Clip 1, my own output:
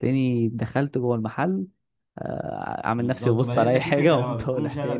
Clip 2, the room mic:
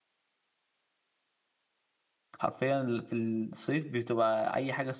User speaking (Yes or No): Yes